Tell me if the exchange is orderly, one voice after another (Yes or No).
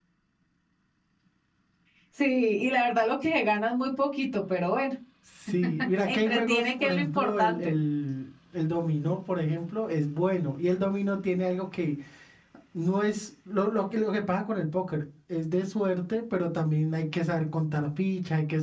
No